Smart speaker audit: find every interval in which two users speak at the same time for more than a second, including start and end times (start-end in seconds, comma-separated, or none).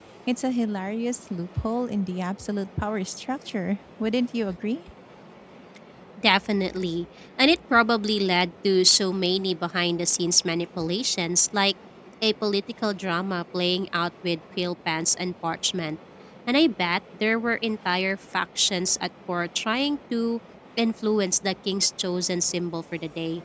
none